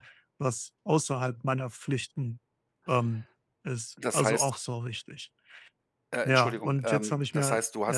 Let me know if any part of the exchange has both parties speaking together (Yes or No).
Yes